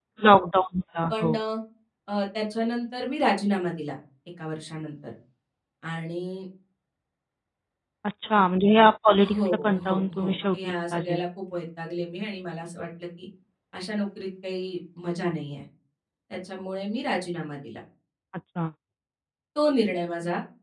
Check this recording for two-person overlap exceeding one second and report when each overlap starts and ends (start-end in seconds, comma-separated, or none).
9.2-11.1